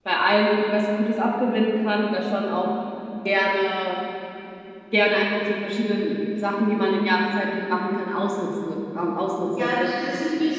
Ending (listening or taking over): taking over